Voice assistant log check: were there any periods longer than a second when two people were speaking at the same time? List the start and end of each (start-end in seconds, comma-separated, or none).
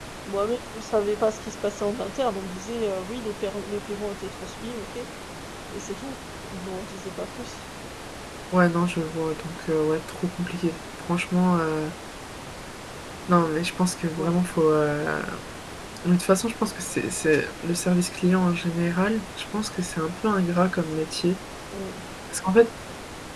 none